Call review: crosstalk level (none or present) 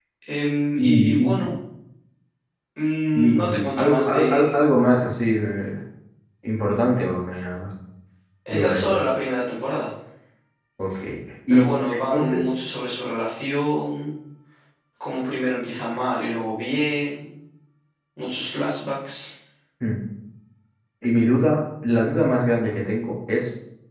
present